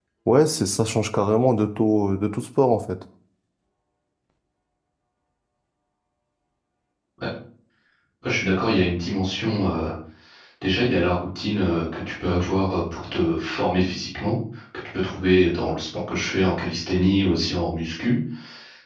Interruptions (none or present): none